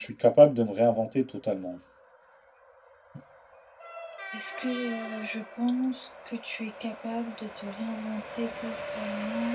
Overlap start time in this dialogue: none

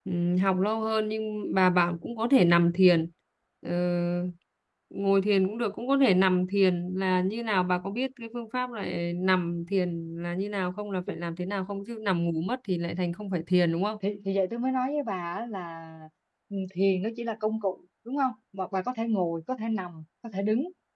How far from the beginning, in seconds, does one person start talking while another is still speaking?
none

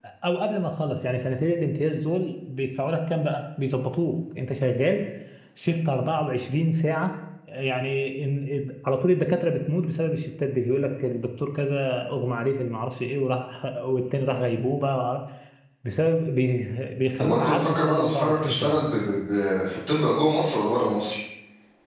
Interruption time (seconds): 17.2 s

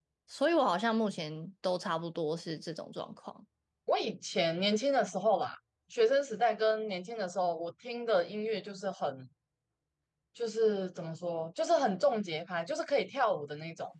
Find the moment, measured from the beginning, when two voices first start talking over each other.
none

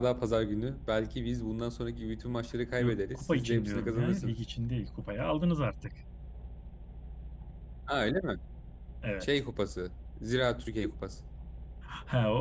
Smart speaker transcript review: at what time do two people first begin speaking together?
2.8 s

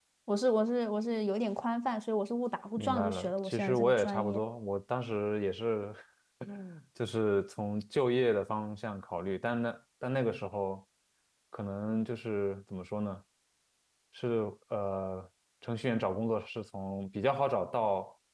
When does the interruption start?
2.8 s

